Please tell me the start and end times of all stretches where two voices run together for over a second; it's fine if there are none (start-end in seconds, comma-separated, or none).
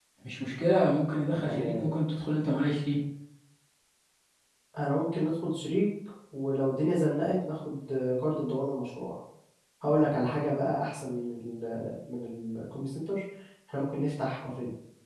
none